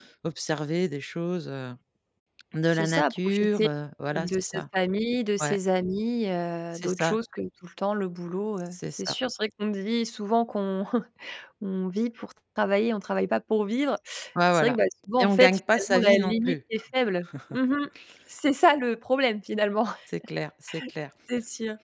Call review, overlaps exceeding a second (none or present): present